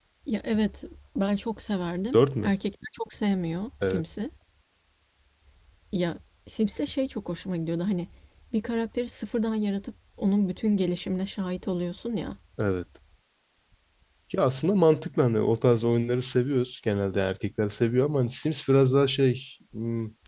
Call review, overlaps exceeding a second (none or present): none